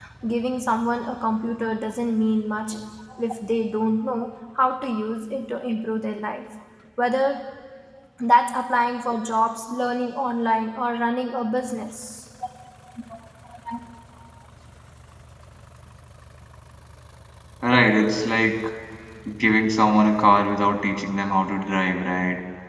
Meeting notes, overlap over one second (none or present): none